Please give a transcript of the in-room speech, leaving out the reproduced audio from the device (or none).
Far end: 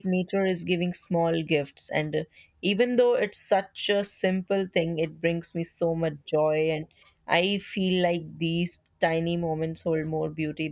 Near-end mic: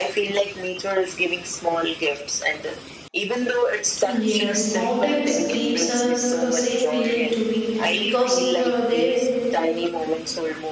Yes, mountains gives us a same feeling to me because uh, their